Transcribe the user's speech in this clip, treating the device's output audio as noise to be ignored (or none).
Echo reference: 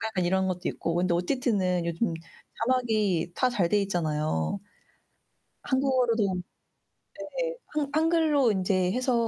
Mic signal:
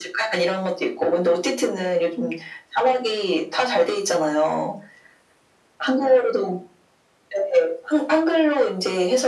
none